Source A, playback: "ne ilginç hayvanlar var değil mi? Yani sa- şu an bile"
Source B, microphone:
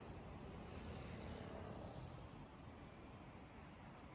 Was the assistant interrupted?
No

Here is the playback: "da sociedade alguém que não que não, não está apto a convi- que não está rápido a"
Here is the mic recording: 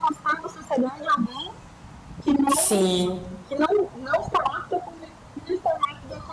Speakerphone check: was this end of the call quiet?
No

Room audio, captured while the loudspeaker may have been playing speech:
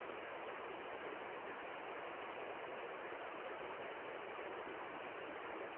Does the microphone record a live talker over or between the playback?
No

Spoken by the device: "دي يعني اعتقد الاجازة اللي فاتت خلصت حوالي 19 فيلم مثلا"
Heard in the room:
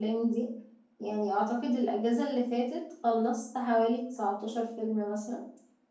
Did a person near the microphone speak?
No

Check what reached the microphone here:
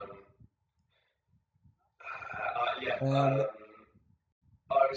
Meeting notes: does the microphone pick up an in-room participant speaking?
Yes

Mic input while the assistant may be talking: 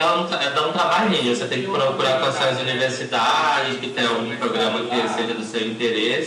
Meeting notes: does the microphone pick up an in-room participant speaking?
Yes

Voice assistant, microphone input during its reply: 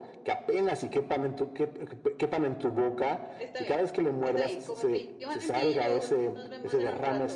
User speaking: Yes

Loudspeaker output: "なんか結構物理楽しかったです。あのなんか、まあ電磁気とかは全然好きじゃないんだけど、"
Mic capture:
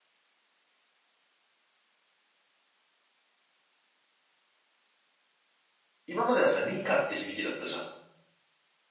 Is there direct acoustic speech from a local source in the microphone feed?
Yes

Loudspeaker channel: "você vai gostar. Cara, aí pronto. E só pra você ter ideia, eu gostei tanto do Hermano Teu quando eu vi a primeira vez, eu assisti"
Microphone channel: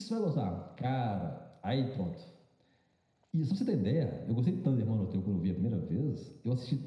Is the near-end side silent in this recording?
Yes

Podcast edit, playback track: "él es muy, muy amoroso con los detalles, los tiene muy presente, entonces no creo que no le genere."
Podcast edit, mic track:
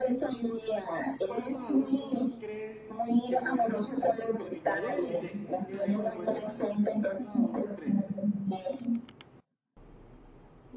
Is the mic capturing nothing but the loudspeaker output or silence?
No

